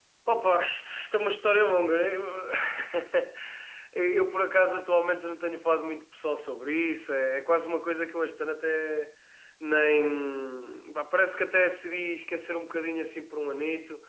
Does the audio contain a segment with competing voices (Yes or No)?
No